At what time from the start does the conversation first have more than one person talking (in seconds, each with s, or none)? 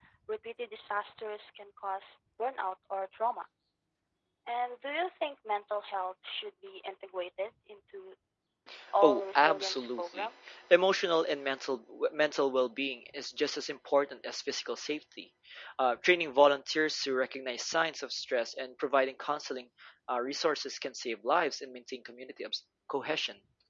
9.0 s